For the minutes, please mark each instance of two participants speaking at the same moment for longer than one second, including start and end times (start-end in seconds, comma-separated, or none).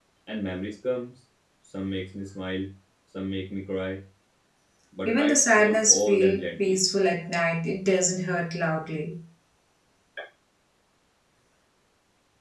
5.1-6.8